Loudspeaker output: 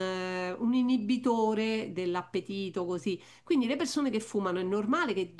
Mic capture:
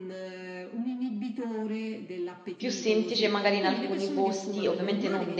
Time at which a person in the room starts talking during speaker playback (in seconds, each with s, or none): 2.5 s